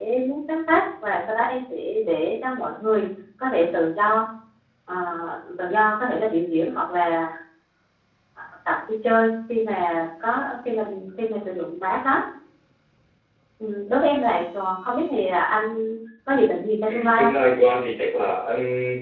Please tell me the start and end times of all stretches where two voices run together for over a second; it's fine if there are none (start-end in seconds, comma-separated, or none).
none